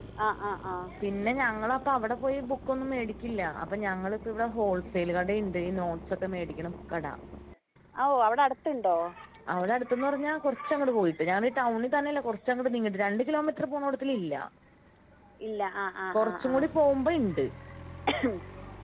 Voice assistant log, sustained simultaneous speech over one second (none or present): none